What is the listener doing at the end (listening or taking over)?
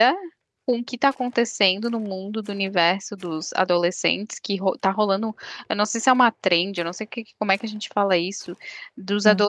listening